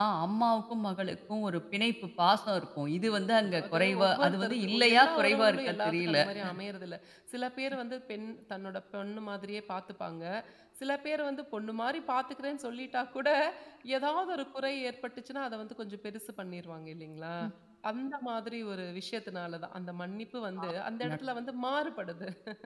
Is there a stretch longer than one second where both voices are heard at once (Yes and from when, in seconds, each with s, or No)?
Yes, from 3.4 s